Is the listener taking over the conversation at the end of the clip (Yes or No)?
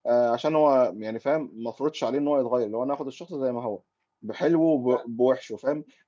No